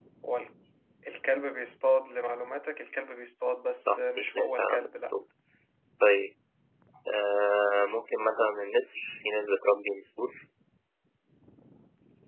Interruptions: present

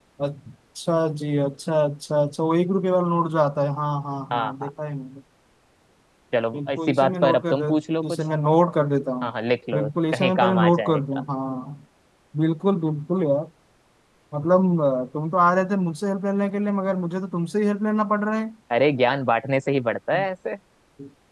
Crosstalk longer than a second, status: present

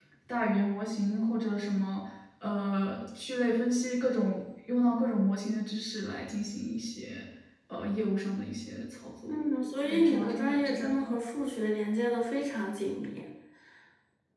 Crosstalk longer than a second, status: present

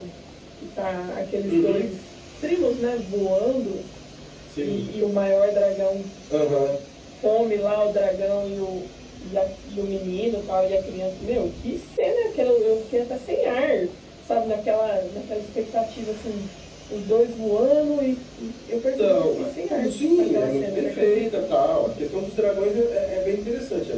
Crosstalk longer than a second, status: present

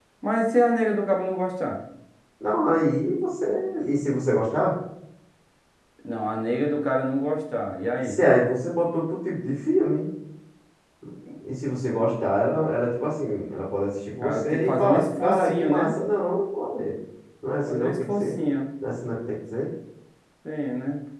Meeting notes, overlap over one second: present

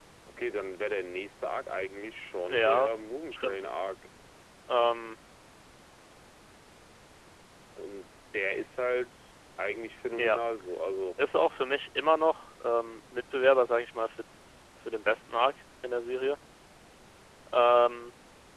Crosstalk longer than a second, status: none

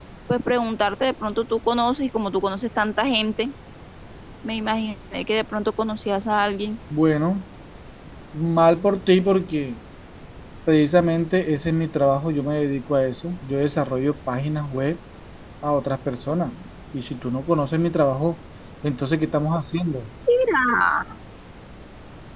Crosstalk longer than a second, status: none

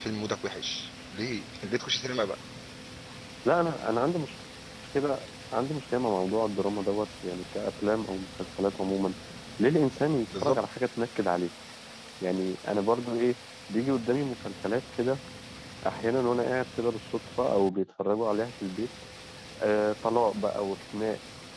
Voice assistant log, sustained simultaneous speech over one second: none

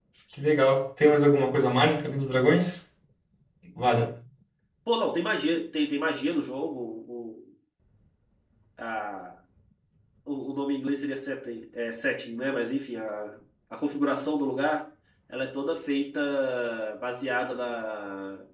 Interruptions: none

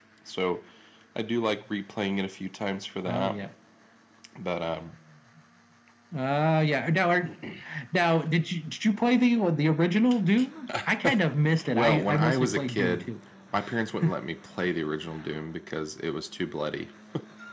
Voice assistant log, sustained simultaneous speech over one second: present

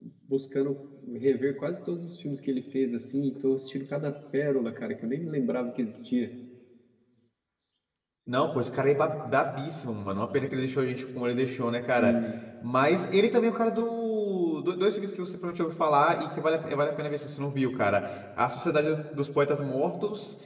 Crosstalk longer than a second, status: none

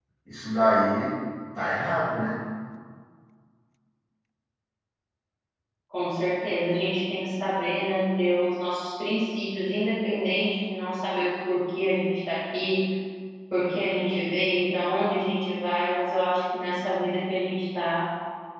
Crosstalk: none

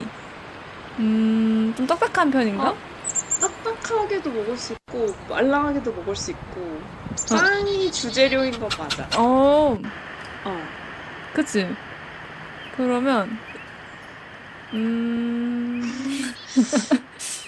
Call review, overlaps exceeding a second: none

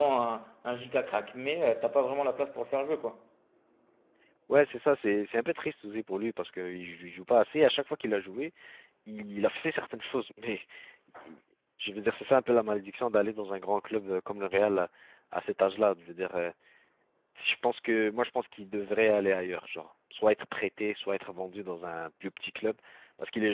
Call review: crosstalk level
none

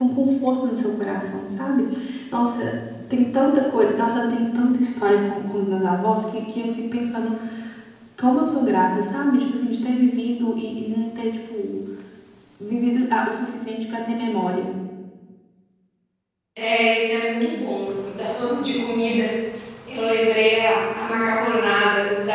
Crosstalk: none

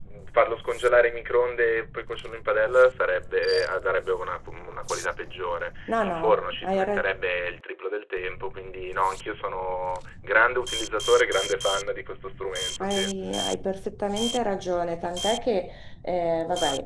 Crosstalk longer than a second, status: none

